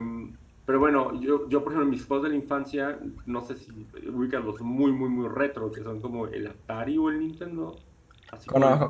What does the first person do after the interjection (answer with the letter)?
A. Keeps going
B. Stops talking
A